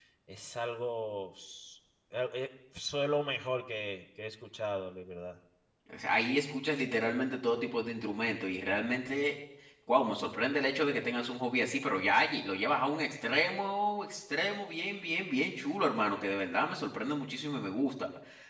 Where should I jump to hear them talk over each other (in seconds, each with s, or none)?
none